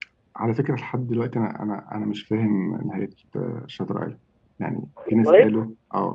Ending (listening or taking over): listening